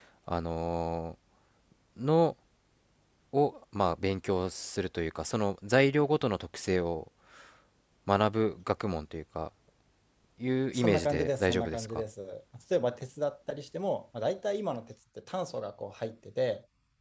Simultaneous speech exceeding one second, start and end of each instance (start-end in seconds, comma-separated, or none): 10.7-12.0